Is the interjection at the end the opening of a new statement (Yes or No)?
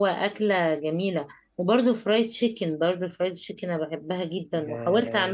Yes